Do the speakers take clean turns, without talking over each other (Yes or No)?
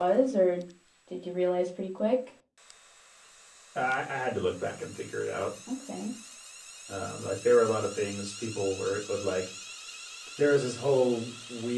Yes